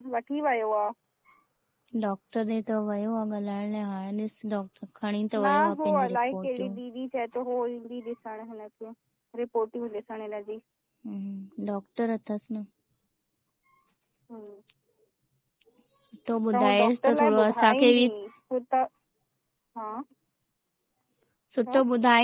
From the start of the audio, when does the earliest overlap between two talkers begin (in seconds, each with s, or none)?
5.4 s